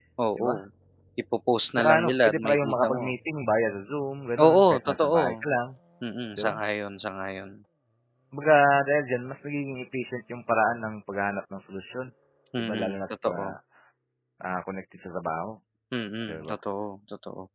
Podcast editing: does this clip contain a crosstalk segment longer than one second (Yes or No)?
Yes